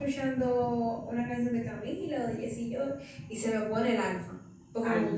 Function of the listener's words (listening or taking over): taking over